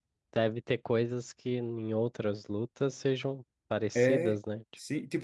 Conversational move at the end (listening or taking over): taking over